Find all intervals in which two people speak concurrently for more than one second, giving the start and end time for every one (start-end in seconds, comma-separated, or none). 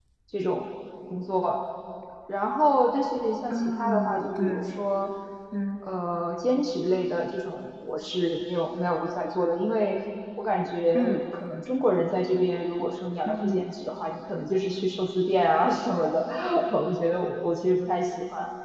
3.5-4.8